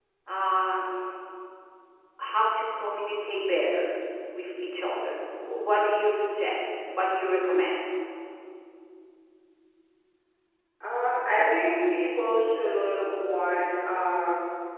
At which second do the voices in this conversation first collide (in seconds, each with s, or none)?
none